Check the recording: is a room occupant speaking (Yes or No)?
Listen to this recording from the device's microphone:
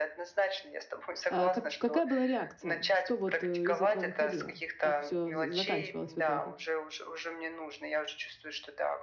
Yes